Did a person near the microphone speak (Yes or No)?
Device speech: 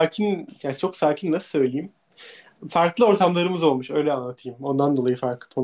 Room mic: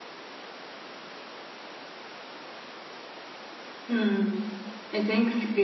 Yes